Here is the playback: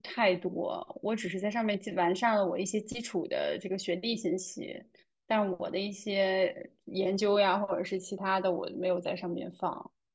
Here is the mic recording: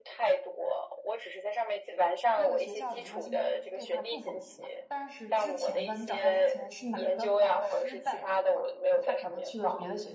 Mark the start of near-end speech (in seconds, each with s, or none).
2.3 s